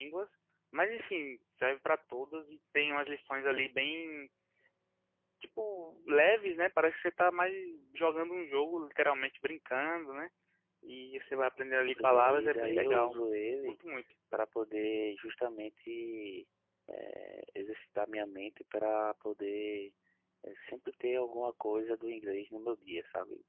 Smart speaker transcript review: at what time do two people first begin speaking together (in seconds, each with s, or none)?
11.9 s